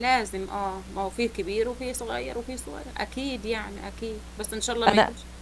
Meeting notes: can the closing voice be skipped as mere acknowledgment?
Yes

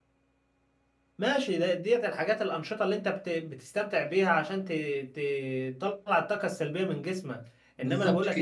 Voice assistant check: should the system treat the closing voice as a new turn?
No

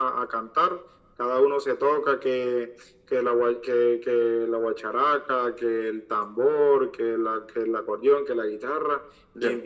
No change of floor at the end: Yes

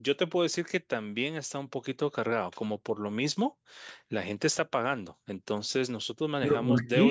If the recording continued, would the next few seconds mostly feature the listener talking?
Yes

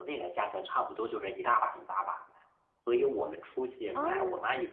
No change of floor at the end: Yes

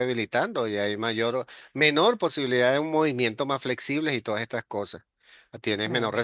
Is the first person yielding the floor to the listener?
No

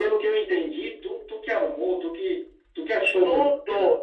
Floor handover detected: Yes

